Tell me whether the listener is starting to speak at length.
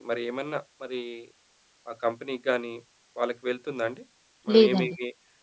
No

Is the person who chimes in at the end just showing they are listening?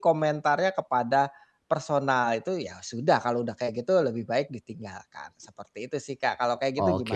No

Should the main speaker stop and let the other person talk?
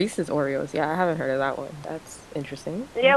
Yes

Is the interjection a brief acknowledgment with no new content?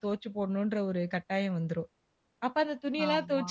Yes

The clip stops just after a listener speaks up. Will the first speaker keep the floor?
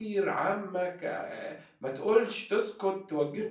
No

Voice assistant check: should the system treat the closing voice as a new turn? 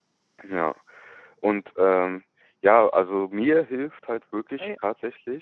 No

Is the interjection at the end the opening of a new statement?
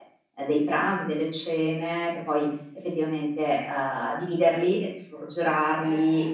No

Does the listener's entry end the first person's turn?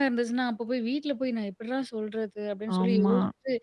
No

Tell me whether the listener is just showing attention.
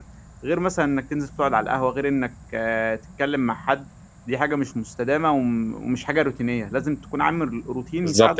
No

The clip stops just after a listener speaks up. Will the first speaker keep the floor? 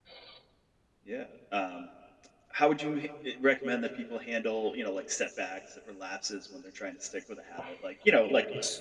Yes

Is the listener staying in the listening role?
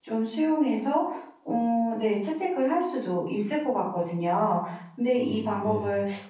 Yes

